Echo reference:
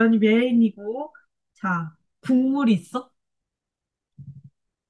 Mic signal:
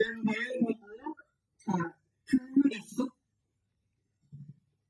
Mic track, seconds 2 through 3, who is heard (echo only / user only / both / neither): echo only